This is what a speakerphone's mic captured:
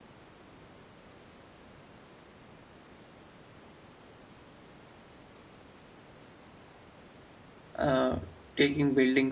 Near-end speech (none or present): present